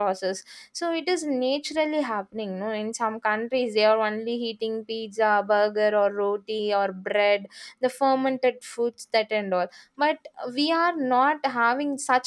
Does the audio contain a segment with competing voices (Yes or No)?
No